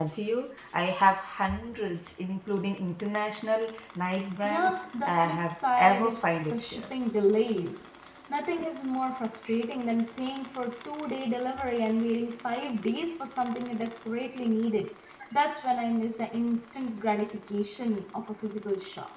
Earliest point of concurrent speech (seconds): 4.4 s

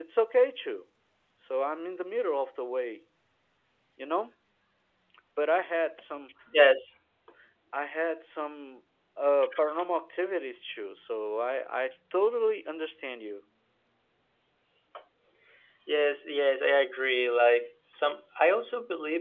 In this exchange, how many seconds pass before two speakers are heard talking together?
none

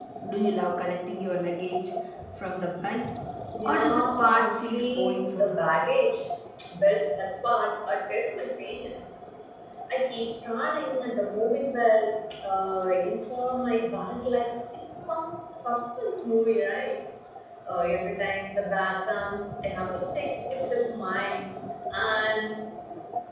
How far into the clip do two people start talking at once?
3.7 s

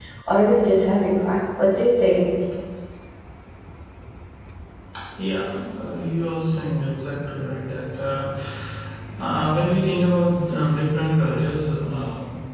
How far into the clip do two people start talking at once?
none

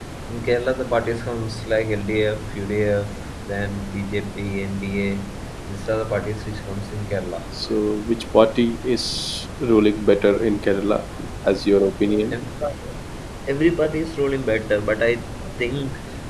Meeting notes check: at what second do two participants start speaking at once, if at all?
none

